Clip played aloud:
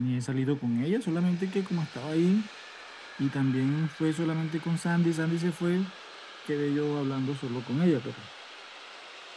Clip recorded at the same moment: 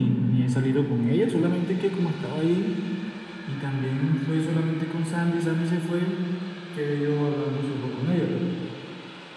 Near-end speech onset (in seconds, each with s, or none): none